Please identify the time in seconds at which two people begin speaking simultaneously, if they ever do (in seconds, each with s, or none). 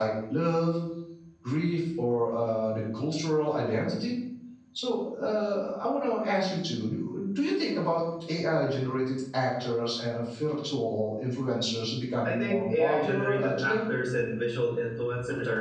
12.2 s